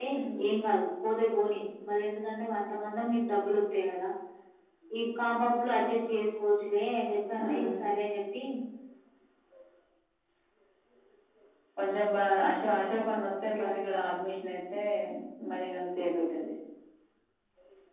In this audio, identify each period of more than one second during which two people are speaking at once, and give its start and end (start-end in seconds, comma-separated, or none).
none